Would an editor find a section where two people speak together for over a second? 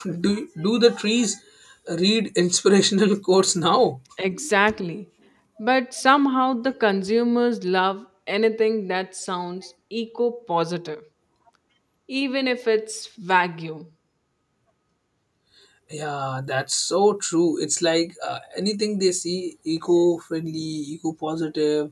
No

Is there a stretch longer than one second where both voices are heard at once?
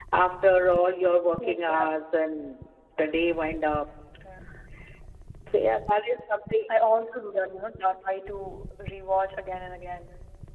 No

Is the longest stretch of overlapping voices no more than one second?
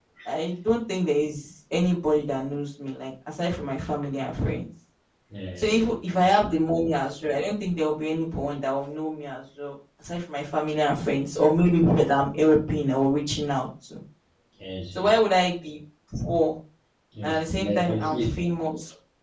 No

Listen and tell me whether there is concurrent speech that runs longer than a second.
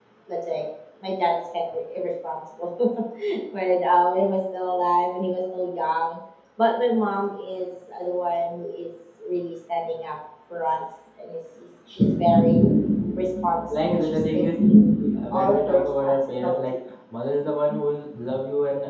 Yes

